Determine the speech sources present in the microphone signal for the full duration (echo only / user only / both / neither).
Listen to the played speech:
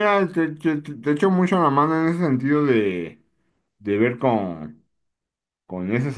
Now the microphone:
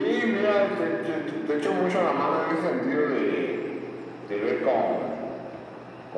echo only